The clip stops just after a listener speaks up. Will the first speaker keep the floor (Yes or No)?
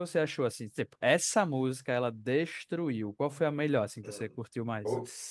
No